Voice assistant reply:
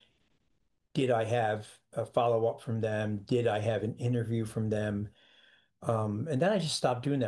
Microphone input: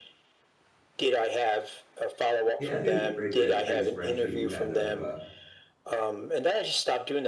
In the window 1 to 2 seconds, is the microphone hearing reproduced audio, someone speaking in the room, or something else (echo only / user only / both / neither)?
echo only